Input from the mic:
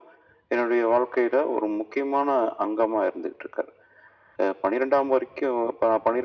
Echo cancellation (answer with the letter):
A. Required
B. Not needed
A